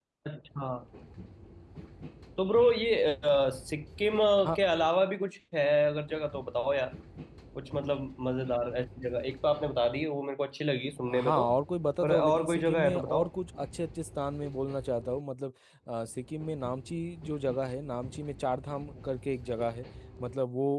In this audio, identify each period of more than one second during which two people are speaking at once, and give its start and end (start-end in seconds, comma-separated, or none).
12.0-13.3